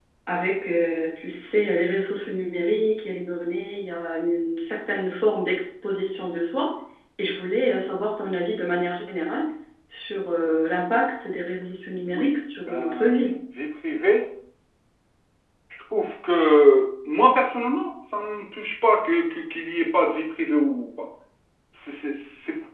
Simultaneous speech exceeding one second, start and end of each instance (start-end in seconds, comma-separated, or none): 12.1-13.3